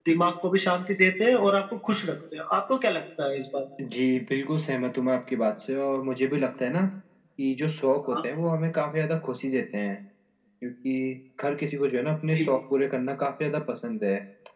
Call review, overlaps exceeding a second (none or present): none